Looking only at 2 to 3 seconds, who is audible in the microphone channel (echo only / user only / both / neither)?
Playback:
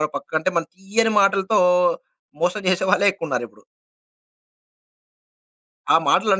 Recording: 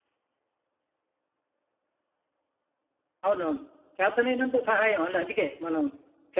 neither